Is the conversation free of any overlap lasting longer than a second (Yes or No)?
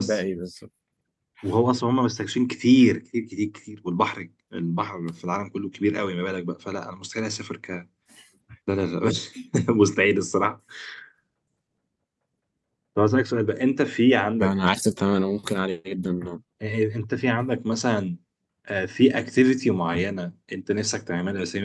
Yes